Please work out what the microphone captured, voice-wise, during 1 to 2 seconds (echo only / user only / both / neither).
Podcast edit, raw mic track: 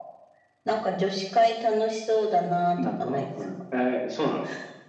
echo only